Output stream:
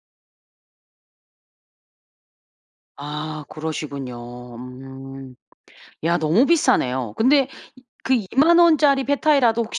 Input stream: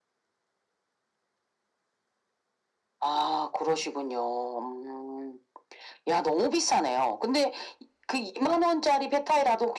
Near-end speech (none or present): none